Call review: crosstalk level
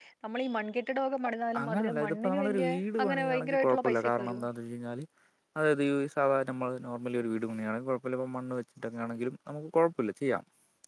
present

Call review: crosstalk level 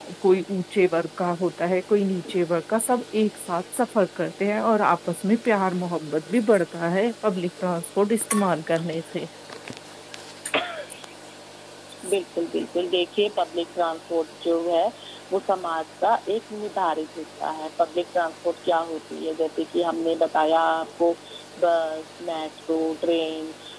none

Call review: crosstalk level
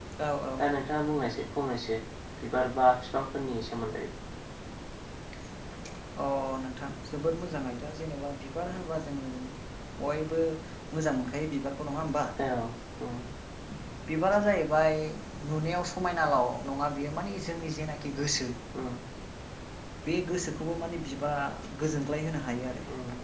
none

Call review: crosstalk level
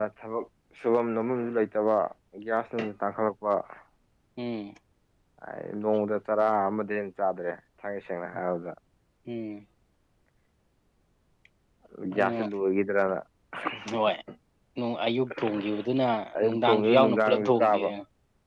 present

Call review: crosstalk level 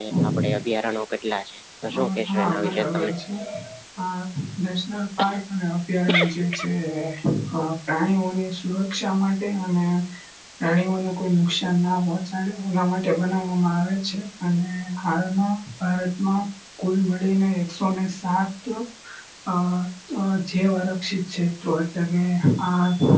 present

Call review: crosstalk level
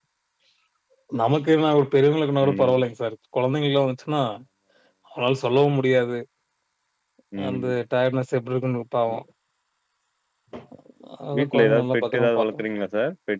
present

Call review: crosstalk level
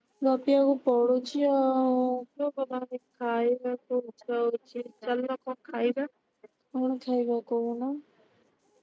none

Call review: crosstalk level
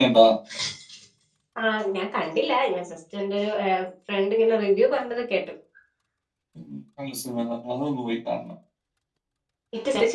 none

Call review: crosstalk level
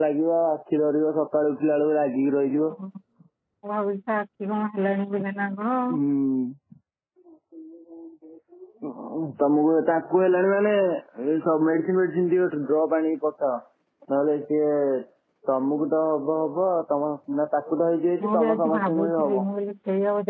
present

